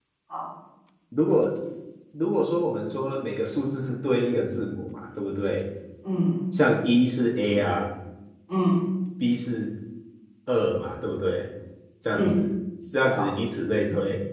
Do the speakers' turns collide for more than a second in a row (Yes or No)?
No